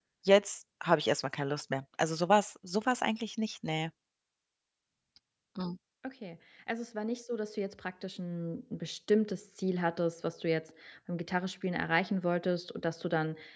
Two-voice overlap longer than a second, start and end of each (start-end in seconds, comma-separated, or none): none